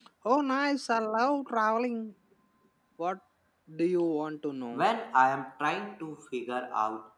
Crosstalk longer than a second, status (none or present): none